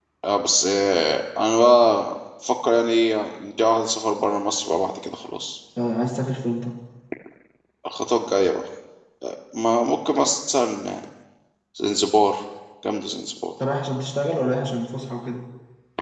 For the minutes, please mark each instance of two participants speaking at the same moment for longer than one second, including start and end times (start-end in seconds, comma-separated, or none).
none